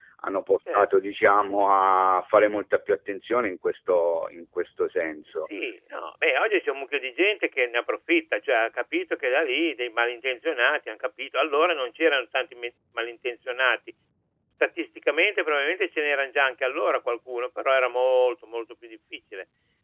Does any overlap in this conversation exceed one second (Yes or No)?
No